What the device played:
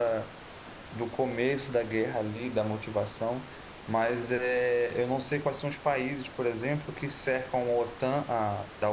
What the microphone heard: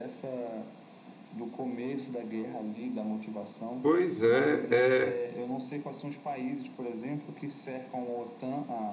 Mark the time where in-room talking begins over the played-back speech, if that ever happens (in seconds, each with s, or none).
3.8 s